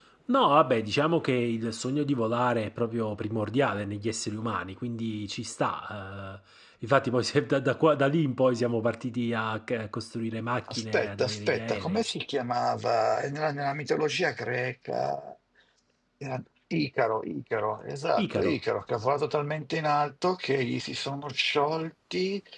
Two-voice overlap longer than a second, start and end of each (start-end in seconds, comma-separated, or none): 10.7-12.0